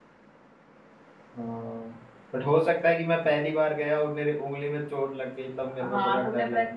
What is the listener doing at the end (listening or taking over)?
taking over